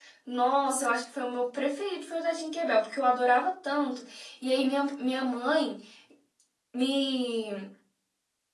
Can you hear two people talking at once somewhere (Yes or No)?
No